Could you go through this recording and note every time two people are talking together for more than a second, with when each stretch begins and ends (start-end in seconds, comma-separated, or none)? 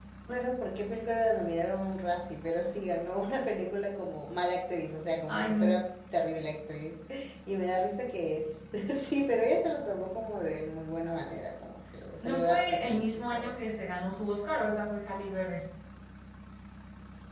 12.2-13.5